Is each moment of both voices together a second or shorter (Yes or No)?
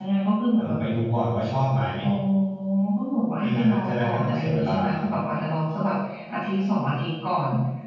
No